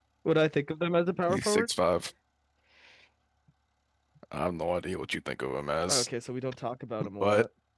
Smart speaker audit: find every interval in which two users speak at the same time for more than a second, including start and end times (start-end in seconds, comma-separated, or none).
none